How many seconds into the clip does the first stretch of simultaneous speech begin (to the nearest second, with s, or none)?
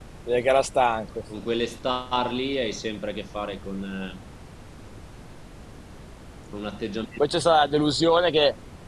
none